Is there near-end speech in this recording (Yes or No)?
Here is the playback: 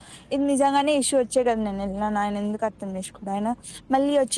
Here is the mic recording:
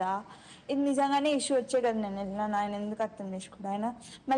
No